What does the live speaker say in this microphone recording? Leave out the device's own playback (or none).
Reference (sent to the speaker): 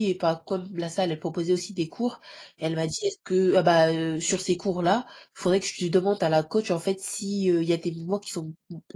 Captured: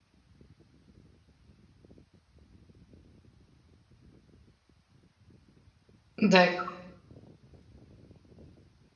D'accord.